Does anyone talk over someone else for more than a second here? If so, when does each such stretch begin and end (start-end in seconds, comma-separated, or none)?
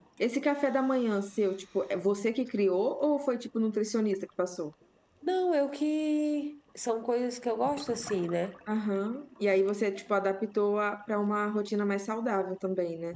none